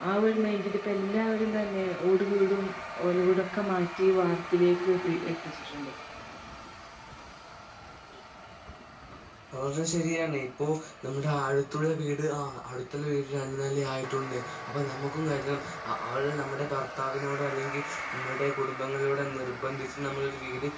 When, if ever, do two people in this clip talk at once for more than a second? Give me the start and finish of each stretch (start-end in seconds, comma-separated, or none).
none